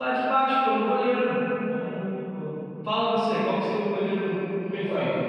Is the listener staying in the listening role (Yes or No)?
No